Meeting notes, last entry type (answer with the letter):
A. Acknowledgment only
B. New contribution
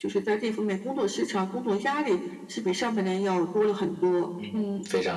B